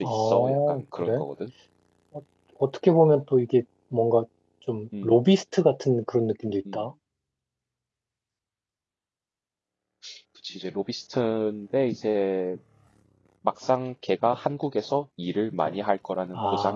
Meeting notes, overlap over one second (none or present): present